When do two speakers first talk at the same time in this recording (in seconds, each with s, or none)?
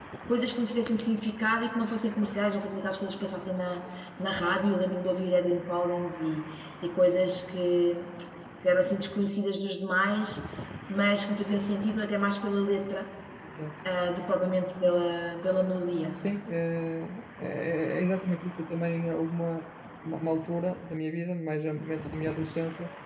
none